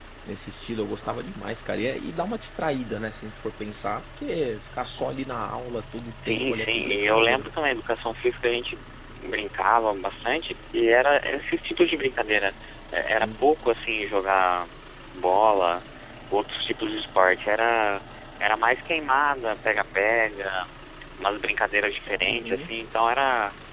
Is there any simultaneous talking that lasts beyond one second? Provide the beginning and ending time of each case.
6.3-7.5

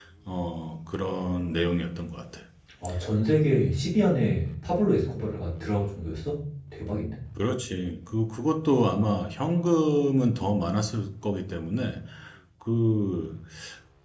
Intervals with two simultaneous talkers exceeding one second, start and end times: none

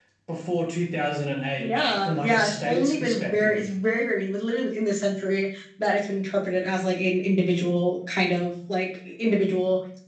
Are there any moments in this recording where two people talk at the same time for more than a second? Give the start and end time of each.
1.6-3.7

